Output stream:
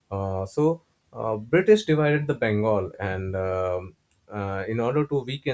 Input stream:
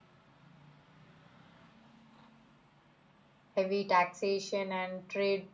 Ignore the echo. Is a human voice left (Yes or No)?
Yes